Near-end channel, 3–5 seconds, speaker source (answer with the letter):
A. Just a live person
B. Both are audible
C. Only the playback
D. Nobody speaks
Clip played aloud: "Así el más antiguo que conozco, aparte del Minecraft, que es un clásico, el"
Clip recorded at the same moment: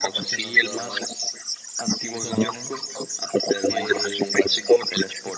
B